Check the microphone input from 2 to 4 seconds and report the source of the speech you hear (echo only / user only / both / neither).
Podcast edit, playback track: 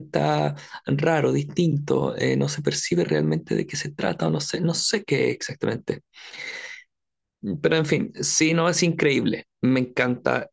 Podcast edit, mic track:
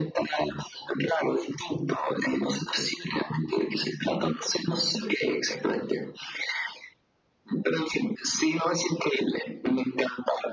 echo only